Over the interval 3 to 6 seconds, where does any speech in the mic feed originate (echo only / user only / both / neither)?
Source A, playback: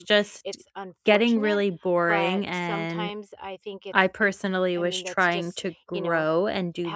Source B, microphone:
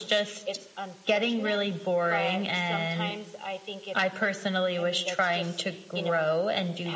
echo only